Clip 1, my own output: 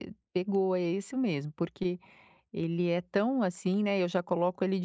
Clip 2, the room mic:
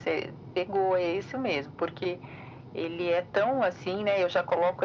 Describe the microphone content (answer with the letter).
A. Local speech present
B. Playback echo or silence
B